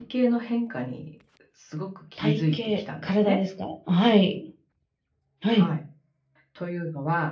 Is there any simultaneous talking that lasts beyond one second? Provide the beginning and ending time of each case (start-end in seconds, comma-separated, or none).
2.2-3.4